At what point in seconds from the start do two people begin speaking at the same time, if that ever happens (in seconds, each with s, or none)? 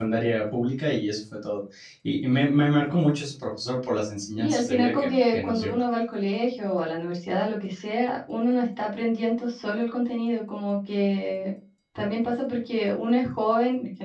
4.3 s